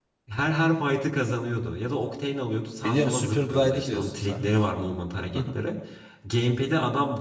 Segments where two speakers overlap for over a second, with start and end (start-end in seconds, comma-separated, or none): 2.8-4.4